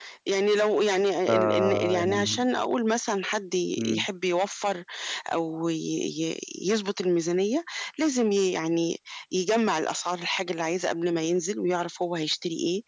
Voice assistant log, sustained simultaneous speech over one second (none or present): present